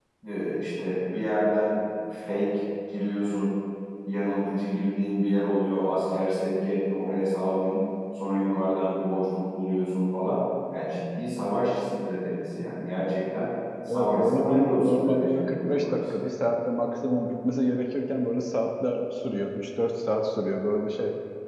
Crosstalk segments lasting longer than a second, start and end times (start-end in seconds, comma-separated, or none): 13.9-16.0